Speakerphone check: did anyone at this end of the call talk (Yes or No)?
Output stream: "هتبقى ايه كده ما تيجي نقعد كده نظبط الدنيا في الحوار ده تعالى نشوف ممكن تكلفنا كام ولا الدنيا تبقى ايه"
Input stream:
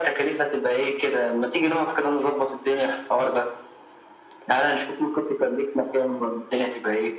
No